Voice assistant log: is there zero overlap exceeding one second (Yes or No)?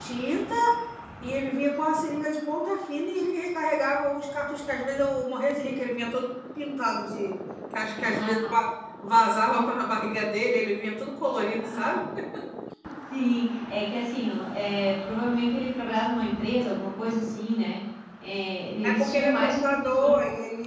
No